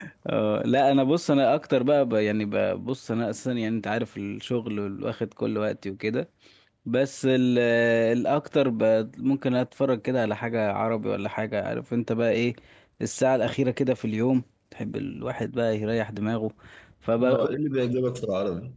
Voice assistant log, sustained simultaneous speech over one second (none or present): none